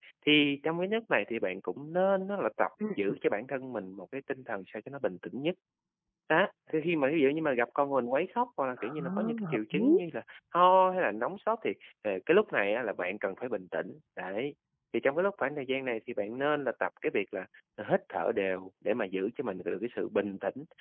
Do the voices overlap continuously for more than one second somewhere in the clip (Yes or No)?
Yes